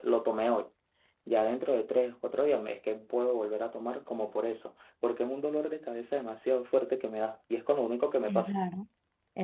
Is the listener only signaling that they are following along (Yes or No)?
No